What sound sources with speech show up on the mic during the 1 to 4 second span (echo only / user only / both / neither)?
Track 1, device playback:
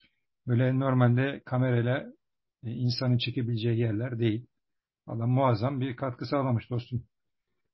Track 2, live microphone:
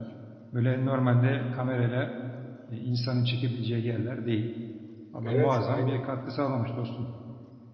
echo only